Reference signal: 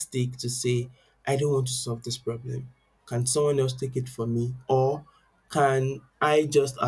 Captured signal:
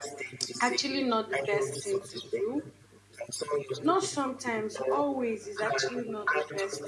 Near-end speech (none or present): present